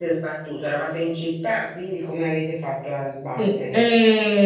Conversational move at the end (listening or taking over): taking over